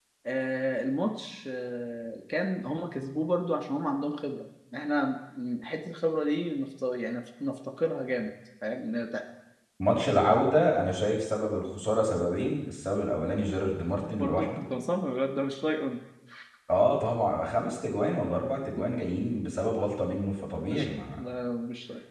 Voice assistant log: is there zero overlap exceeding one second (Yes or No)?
Yes